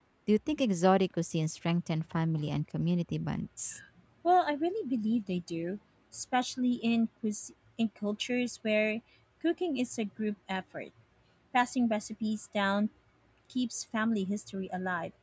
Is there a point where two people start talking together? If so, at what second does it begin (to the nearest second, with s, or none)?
none